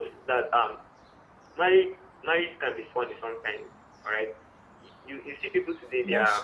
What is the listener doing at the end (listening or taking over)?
listening